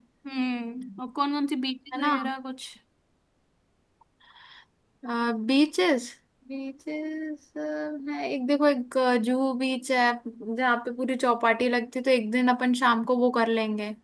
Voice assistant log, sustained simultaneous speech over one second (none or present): none